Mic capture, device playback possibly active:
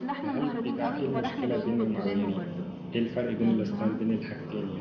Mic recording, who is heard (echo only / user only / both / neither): both